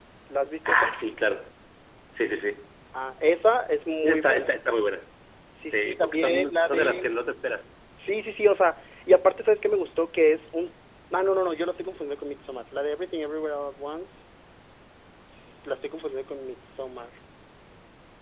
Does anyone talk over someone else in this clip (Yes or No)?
Yes